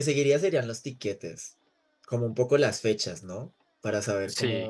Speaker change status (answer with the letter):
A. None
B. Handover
A